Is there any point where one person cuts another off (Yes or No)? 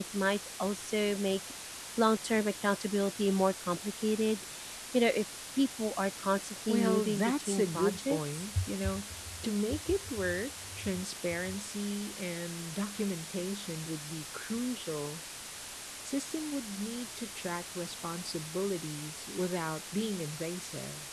Yes